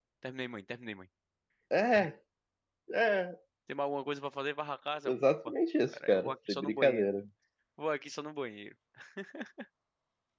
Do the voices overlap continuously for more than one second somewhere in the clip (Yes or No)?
Yes